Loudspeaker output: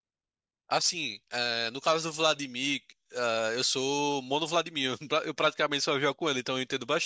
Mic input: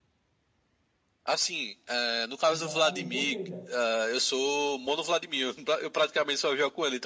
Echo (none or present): present